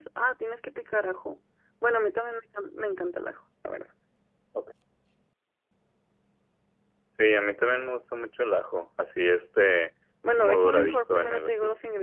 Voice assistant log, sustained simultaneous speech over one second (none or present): present